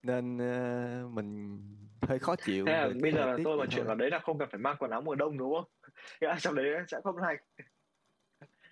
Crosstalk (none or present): present